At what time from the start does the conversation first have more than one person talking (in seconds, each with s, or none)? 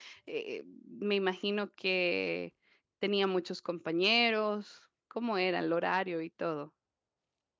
none